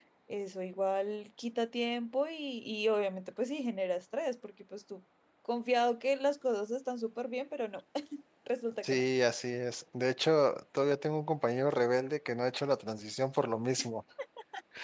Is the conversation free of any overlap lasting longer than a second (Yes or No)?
Yes